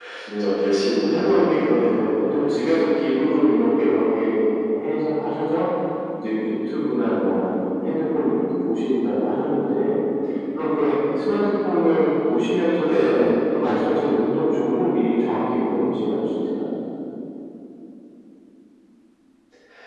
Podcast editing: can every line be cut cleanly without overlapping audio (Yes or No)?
No